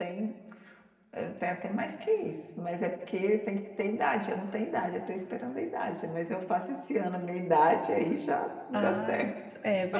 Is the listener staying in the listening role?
No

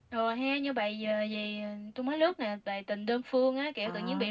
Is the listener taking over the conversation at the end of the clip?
No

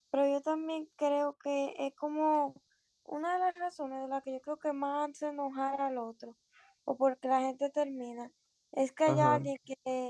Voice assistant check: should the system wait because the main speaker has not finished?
Yes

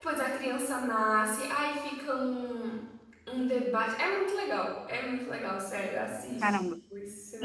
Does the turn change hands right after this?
Yes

